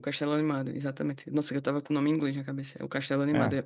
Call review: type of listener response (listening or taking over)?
listening